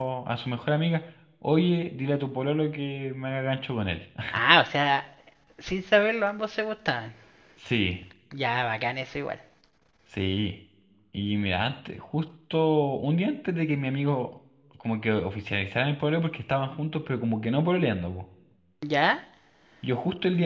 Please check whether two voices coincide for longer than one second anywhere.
No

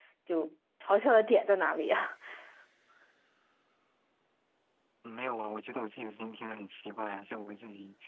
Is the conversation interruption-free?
Yes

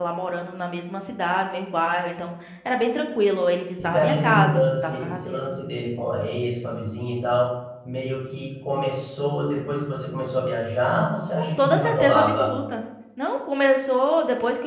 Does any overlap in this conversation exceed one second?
Yes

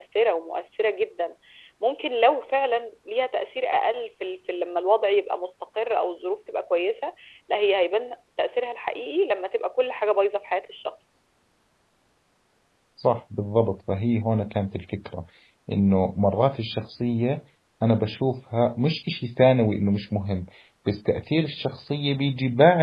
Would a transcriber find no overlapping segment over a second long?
Yes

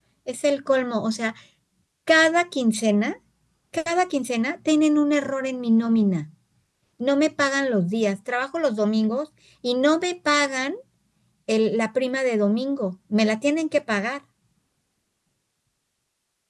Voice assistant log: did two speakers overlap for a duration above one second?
No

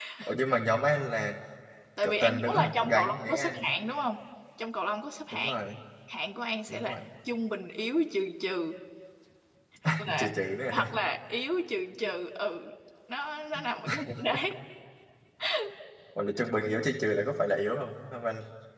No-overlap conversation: No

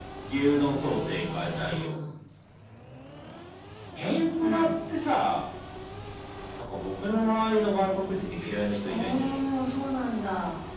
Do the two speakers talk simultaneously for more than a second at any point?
Yes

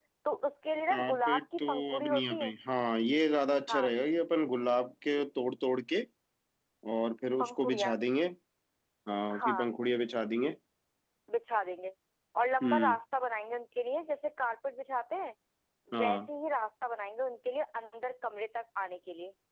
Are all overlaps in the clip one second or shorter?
No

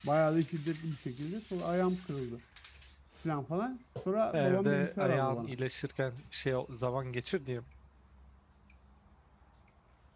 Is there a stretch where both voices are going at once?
Yes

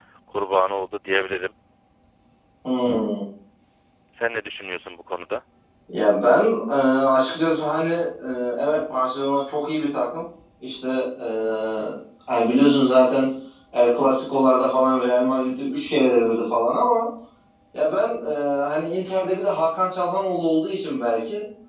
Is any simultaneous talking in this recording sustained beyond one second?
No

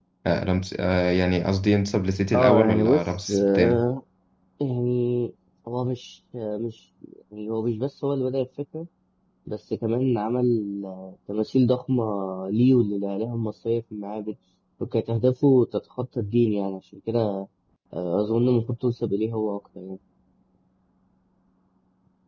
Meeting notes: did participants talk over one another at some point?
Yes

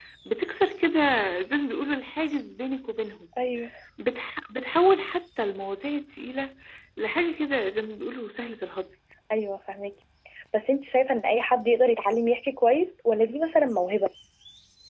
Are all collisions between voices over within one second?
Yes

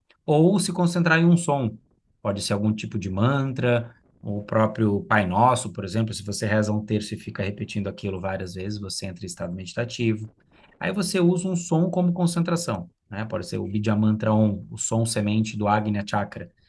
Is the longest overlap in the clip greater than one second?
No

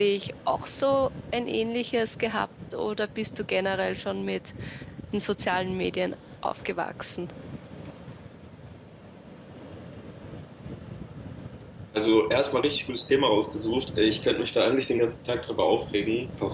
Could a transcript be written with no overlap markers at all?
Yes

